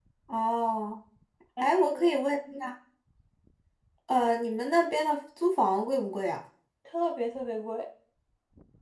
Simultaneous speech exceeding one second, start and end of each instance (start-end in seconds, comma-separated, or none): none